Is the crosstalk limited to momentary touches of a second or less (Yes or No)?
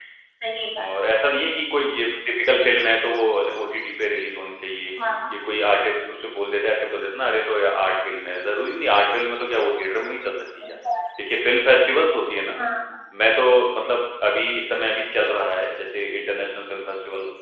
Yes